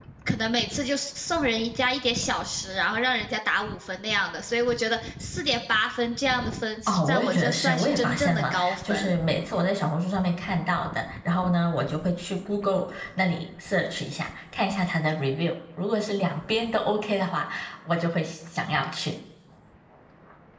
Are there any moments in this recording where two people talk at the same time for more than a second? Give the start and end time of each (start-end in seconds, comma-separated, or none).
6.9-9.1